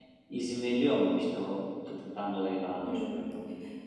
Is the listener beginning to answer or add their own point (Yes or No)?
Yes